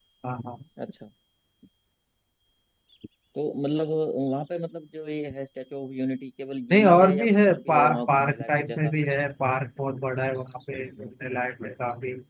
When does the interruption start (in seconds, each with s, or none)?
6.7 s